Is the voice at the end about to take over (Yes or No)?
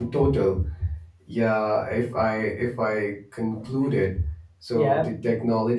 No